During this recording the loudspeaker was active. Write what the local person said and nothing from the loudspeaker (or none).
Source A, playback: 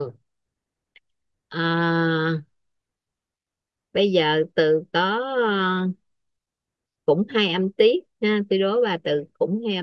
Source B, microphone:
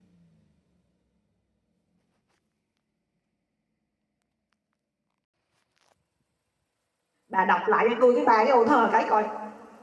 bà đọc lại cho tôi cái bài cái ô thơ cái coi.